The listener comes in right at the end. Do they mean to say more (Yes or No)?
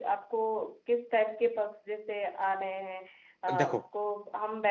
No